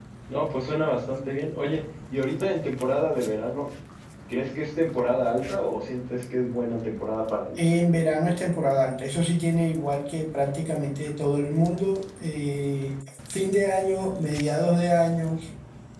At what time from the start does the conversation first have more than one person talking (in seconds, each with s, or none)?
none